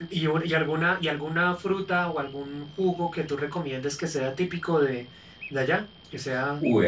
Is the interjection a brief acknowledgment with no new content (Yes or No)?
No